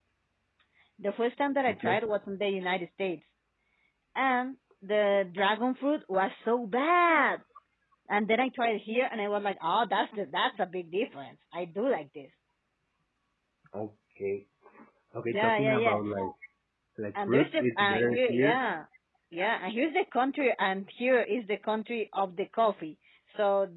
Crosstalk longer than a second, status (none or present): present